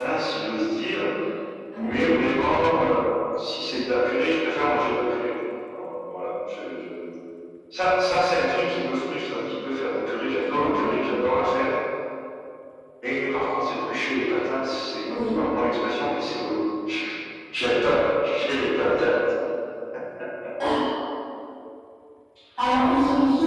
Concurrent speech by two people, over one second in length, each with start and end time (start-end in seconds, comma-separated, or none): none